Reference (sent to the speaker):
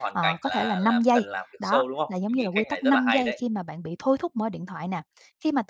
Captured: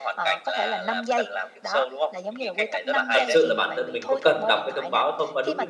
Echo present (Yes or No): Yes